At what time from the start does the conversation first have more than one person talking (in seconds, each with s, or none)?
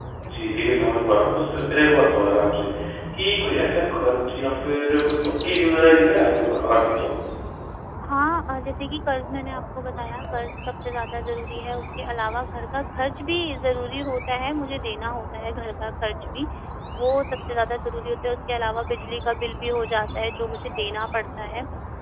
none